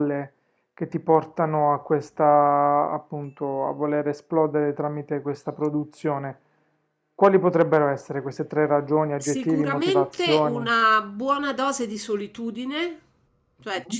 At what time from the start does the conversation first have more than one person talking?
9.2 s

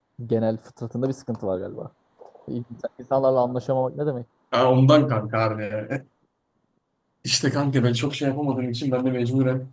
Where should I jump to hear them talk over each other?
none

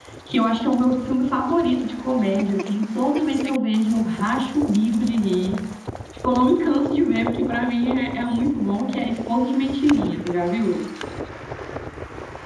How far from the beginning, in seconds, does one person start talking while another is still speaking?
none

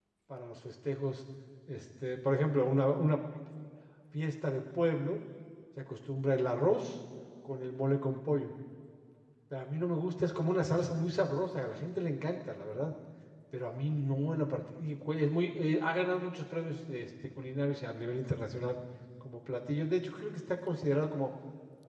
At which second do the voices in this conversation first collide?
none

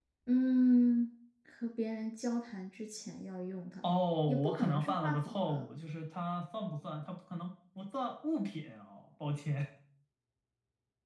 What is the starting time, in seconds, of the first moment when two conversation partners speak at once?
4.3 s

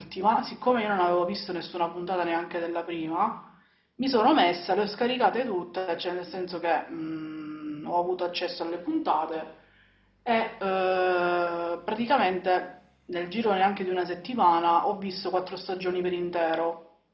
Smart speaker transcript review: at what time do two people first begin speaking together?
none

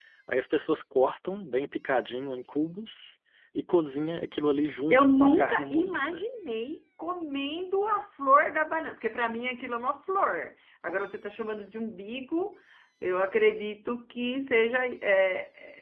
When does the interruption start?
4.9 s

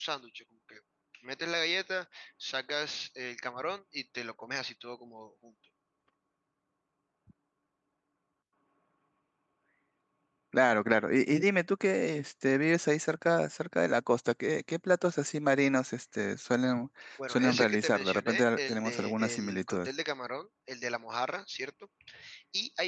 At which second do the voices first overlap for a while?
17.2 s

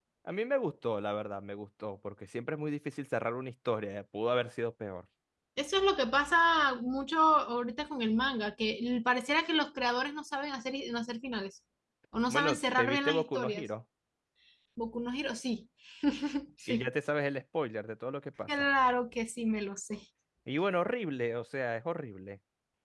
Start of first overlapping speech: 12.3 s

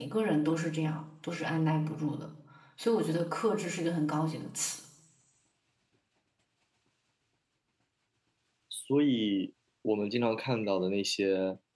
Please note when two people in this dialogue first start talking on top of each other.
none

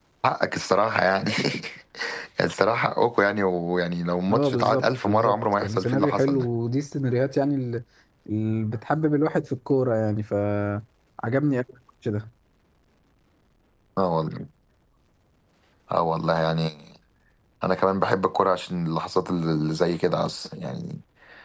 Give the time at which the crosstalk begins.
4.3 s

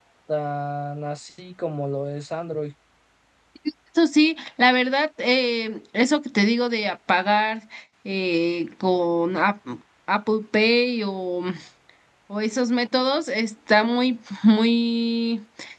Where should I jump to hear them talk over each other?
none

